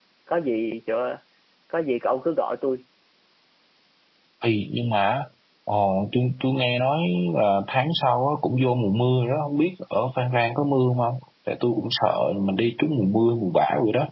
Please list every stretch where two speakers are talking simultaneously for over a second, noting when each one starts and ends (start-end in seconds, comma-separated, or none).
none